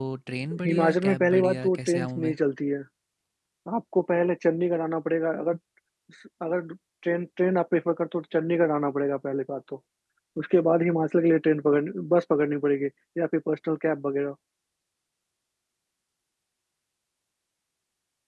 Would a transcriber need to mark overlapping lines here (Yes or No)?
Yes